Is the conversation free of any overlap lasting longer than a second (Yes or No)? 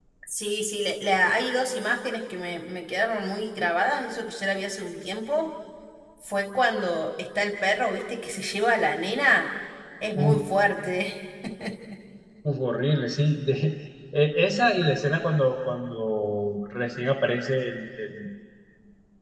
Yes